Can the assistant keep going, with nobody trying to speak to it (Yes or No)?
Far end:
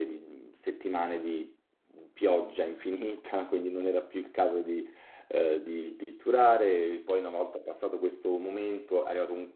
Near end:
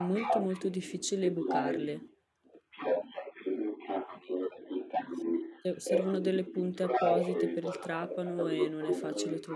No